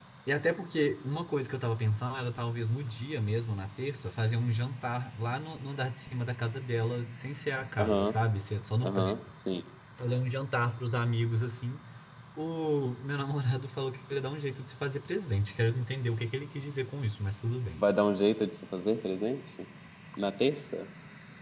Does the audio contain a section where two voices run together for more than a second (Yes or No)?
No